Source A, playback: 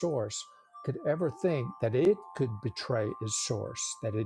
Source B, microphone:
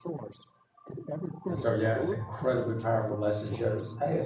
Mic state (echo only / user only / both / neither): both